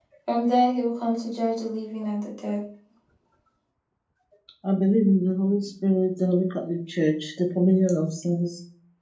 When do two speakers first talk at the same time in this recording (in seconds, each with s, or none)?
none